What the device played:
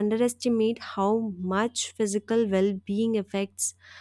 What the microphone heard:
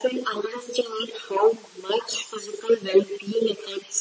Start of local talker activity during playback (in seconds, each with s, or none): none